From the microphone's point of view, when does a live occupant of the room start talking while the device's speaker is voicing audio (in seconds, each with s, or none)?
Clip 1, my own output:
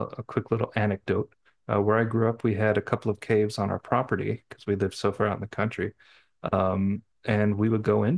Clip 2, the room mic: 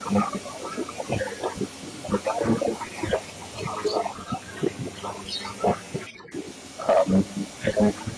none